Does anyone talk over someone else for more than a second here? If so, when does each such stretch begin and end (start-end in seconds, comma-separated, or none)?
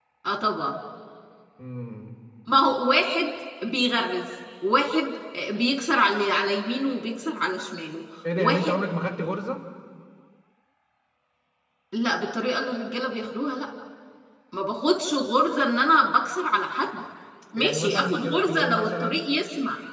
17.6-19.2